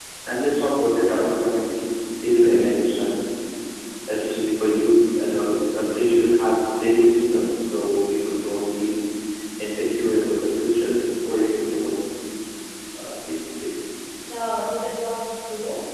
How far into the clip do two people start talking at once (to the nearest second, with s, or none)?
none